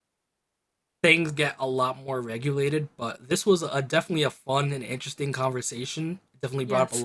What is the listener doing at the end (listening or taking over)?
listening